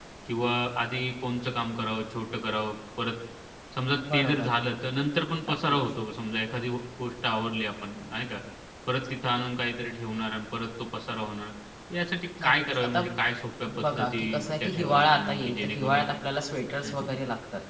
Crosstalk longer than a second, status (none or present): present